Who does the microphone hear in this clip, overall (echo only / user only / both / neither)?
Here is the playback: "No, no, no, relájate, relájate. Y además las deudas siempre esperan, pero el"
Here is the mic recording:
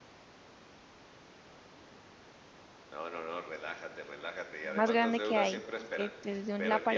both